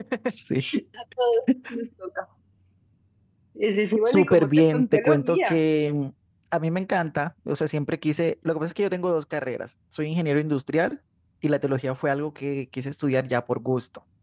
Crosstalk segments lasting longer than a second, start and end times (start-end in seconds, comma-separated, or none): 4.1-5.6